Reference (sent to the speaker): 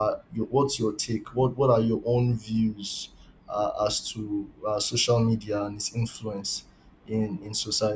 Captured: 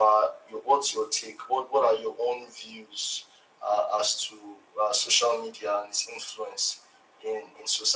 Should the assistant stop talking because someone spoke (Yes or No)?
No